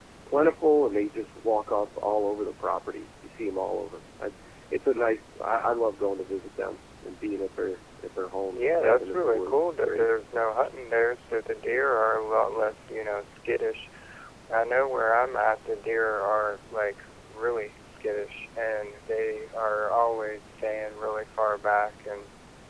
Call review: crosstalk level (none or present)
present